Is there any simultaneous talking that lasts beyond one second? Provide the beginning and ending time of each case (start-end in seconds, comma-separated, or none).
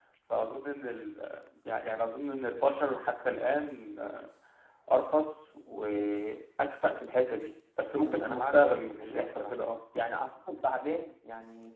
8.0-9.5